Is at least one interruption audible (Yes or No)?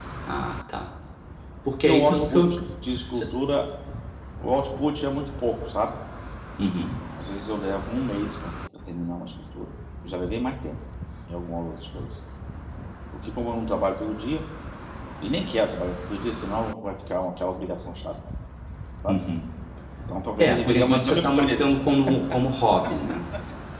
Yes